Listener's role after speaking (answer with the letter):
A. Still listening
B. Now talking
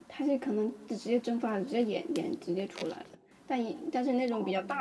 A